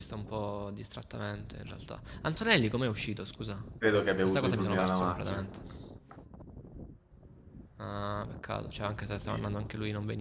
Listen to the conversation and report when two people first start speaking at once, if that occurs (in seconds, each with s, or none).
4.2 s